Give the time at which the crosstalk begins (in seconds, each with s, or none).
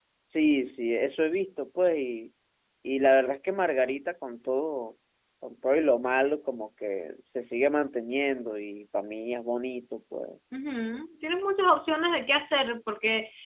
none